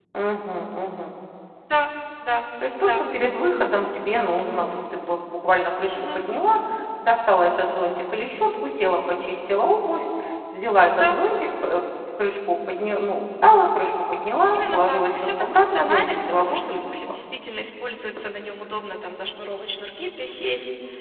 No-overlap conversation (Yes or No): No